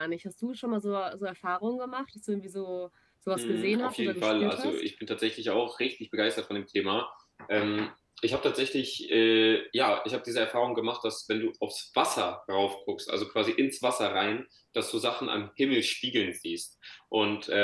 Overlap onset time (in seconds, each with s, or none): 3.4 s